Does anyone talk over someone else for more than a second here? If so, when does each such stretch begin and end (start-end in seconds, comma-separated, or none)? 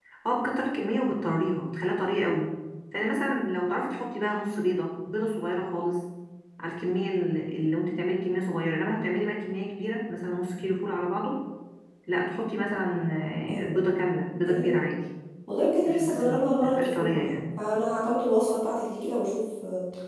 15.9-17.3